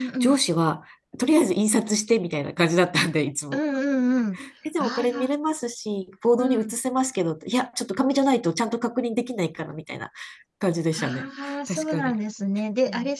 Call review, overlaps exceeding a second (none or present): present